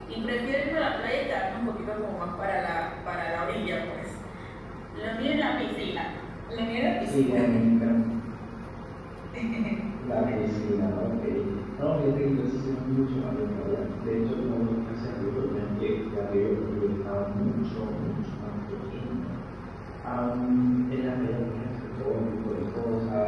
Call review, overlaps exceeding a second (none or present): none